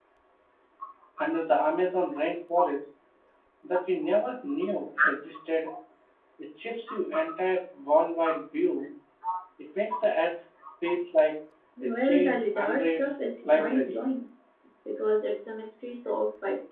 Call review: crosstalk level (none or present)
present